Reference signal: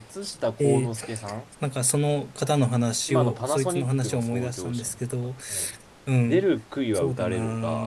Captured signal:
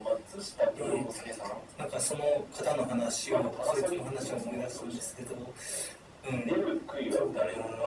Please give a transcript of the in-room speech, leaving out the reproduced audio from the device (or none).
none